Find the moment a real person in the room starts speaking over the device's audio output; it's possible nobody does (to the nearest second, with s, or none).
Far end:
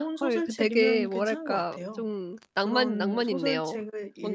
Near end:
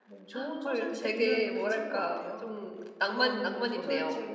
none